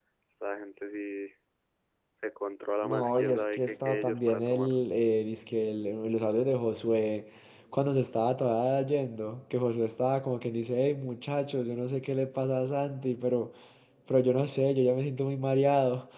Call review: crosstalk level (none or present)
present